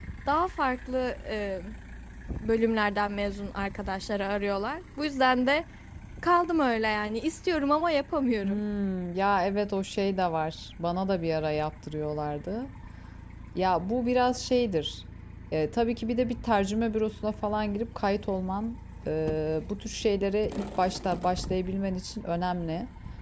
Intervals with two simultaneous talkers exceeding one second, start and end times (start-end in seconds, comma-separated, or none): none